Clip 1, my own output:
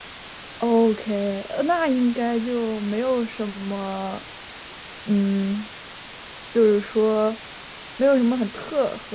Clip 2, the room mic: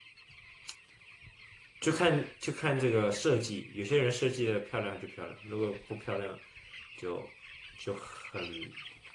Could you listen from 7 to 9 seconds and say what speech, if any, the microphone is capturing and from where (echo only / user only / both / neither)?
user only